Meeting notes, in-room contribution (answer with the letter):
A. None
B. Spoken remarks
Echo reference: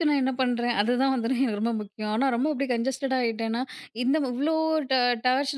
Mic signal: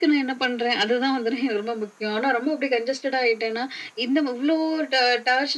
A